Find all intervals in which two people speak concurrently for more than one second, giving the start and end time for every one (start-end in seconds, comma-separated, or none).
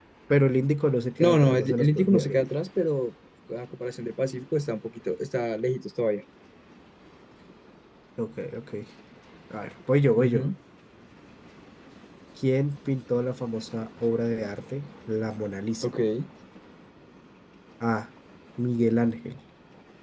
1.2-2.5